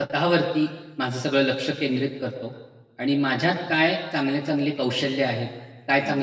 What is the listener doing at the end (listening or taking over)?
listening